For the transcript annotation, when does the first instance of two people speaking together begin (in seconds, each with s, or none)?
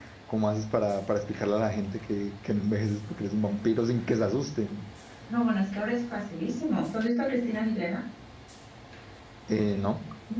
none